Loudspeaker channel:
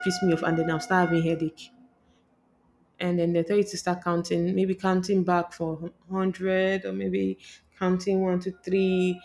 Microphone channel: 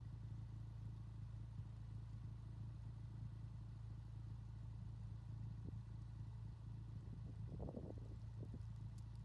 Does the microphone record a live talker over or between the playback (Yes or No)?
No